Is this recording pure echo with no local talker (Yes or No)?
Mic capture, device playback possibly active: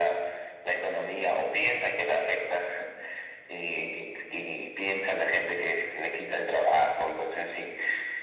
Yes